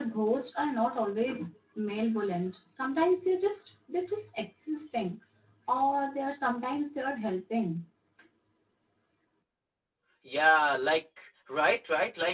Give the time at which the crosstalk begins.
none

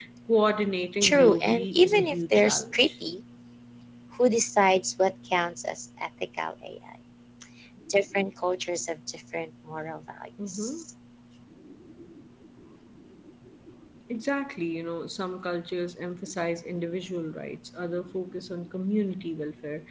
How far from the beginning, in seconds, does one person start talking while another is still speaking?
1 s

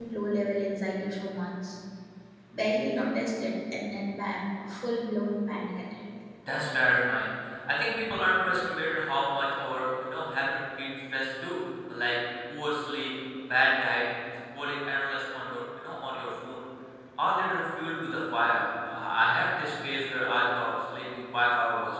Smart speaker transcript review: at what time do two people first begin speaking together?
none

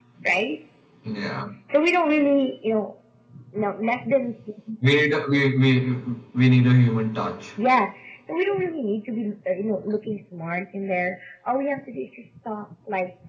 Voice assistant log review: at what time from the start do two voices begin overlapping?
none

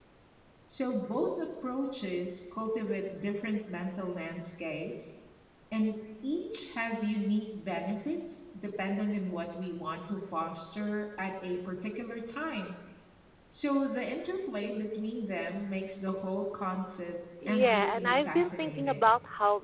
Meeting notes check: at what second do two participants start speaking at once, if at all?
17 s

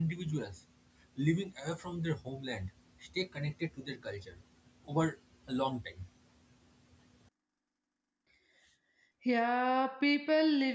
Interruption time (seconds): none

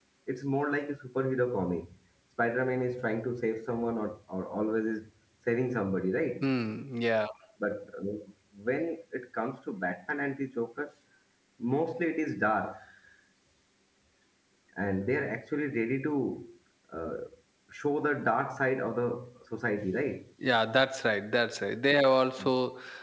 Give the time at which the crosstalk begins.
none

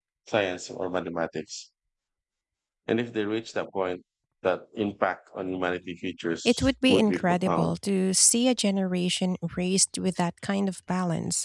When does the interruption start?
6 s

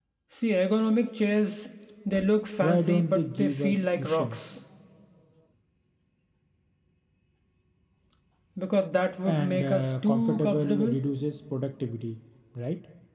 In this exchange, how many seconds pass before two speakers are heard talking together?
3 s

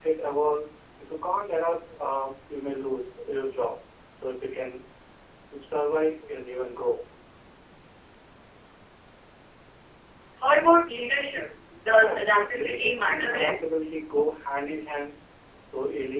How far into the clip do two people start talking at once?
12 s

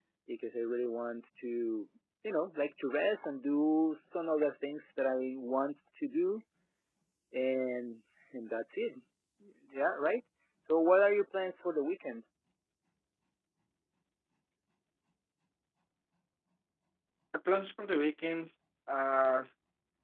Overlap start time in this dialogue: none

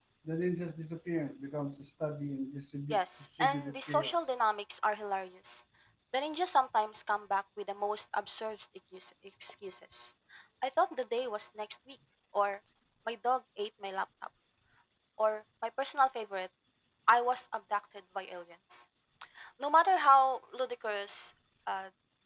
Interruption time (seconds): 3 s

